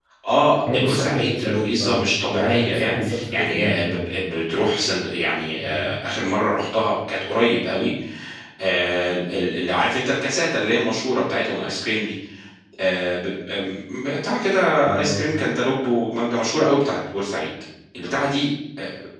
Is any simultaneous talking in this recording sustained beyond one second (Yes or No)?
Yes